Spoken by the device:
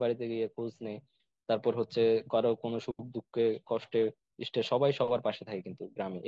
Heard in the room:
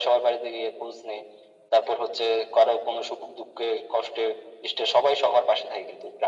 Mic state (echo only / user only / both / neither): echo only